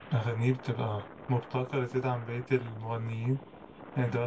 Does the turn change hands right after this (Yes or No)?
No